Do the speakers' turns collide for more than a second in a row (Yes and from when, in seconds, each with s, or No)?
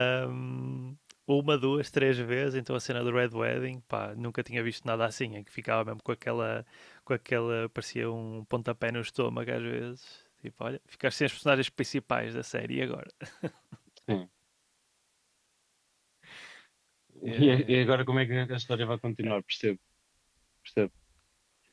No